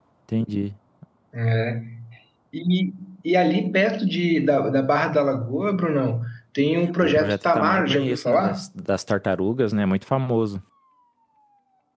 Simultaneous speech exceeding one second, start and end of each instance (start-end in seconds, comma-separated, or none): 7.0-8.7